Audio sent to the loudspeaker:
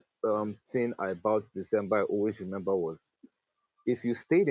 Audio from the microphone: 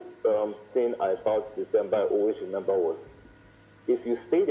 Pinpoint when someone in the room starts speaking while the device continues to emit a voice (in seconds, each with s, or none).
none